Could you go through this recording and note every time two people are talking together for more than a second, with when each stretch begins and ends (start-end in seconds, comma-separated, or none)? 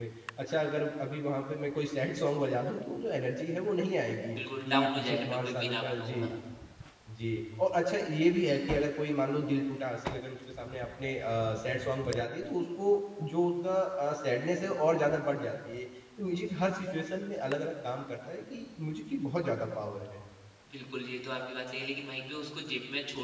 4.7-6.2